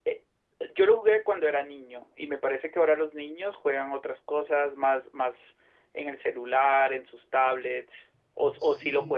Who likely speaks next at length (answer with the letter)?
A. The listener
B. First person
A